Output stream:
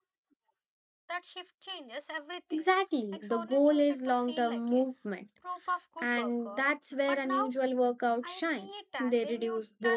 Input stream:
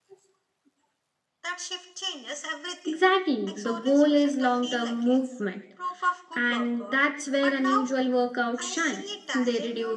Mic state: echo only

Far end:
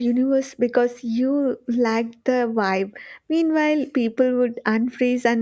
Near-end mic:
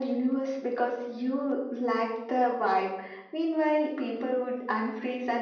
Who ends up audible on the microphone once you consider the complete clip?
echo only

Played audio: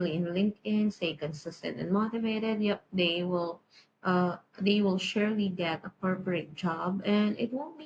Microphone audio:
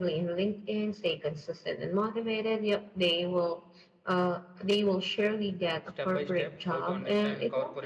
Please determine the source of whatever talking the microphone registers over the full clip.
both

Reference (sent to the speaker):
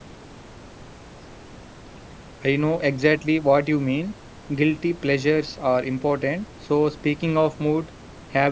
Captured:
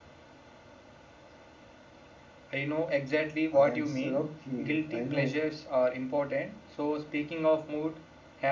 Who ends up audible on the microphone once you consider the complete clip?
both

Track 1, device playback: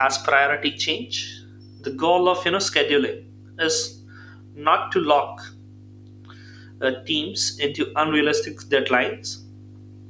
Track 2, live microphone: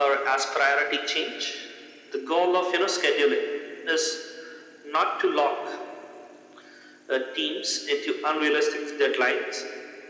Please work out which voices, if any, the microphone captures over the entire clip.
echo only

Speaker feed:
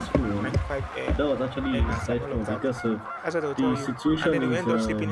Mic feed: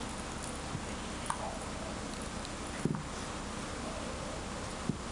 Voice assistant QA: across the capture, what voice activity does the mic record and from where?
neither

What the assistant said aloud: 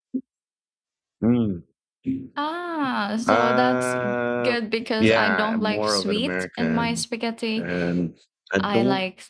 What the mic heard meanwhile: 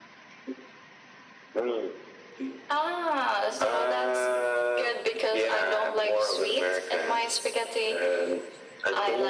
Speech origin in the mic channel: echo only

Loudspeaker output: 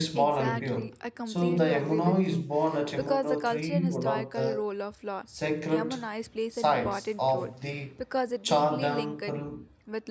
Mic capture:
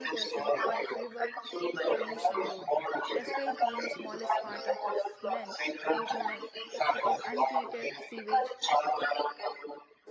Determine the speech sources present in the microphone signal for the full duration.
both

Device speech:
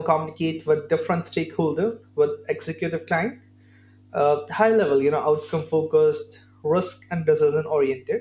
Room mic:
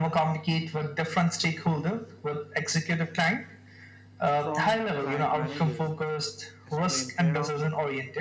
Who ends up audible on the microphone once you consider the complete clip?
both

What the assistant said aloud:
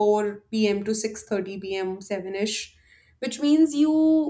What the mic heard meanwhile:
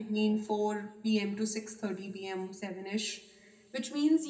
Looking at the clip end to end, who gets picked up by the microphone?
echo only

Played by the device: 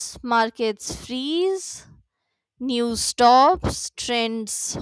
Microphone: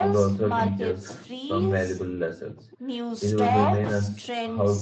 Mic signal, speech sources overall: both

